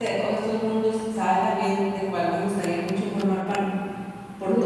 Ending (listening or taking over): listening